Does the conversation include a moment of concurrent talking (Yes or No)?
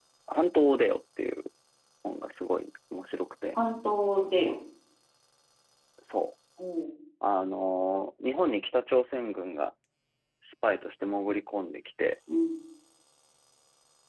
No